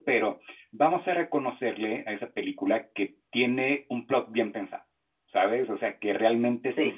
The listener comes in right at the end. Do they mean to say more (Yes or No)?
No